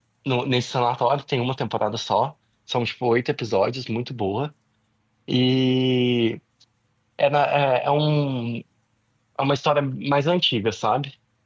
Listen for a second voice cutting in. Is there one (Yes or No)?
No